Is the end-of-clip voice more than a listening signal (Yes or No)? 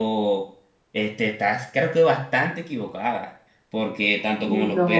No